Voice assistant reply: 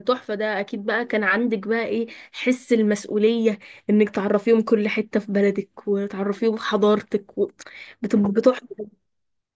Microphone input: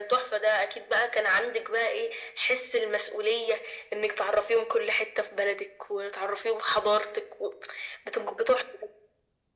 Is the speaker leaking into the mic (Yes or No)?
Yes